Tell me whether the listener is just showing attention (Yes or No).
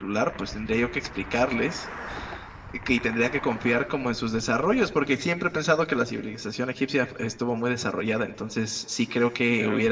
Yes